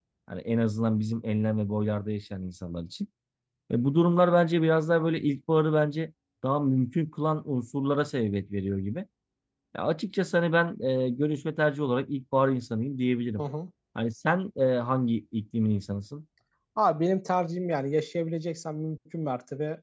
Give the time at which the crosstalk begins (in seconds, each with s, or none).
none